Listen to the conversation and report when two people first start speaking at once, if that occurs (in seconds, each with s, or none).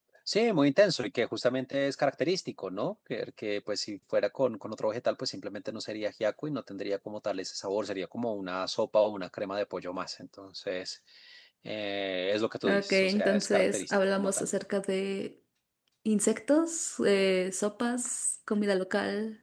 12.6 s